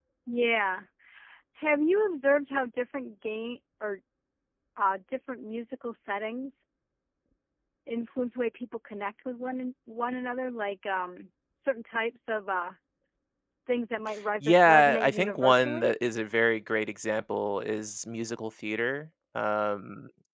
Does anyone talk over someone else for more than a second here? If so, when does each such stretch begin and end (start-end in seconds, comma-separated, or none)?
14.4-15.9